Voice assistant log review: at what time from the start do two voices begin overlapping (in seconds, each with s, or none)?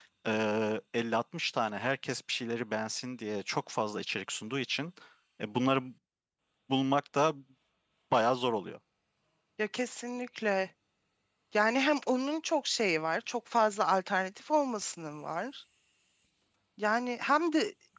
none